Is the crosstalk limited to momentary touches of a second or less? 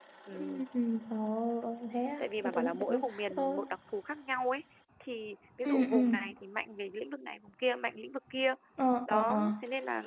No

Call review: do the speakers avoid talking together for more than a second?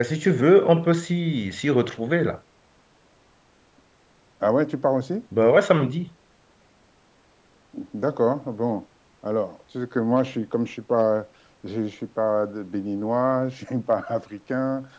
Yes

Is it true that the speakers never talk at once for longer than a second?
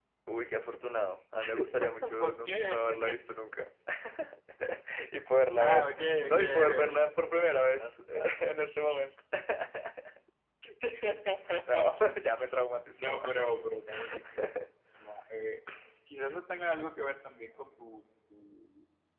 No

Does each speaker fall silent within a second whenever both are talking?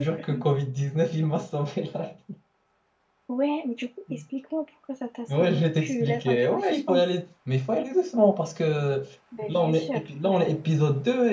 No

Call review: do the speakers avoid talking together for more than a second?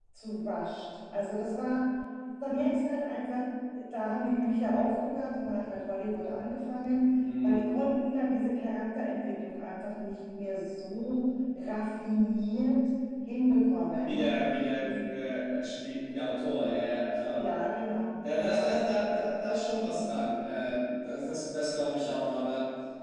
Yes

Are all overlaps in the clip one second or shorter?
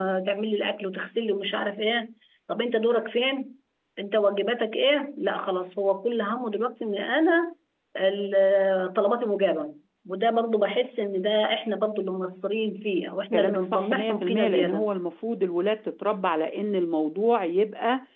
No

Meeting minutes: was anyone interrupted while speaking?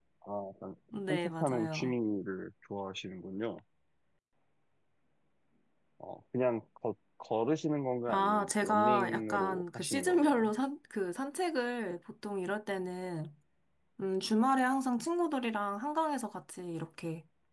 Yes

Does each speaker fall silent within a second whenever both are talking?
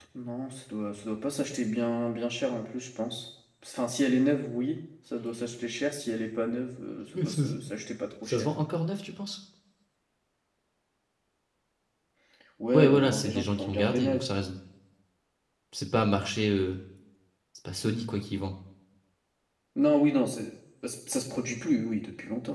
No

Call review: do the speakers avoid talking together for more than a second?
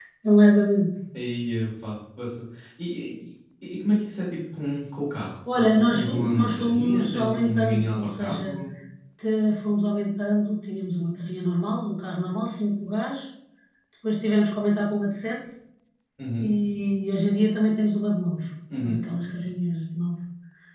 No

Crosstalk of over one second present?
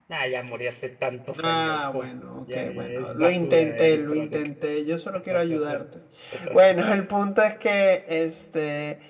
Yes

